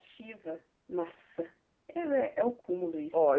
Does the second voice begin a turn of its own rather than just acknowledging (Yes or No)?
Yes